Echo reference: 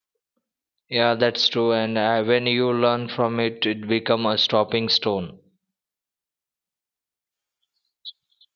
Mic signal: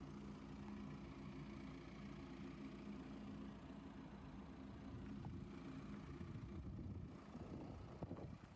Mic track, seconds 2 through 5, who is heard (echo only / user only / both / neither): neither